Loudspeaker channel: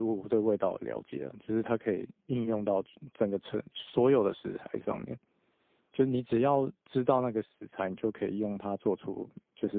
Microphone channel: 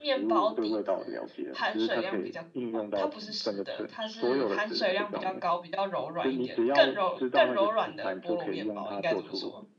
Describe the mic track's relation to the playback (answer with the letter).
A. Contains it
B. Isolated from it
A